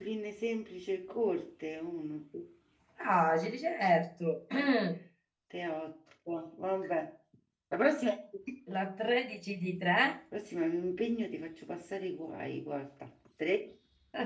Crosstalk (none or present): none